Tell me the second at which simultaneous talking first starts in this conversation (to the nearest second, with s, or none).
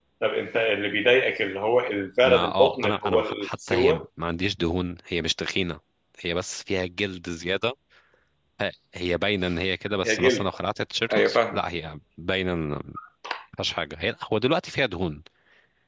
2 s